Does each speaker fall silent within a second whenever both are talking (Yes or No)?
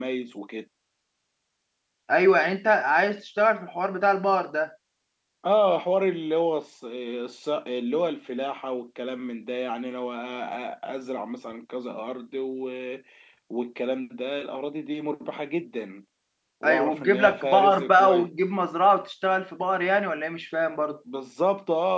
No